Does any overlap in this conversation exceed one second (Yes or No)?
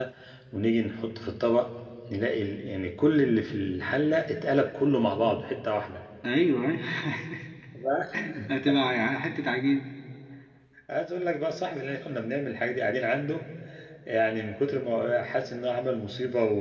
No